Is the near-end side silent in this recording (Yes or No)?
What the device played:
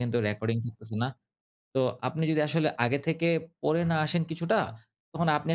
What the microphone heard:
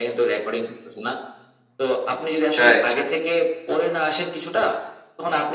No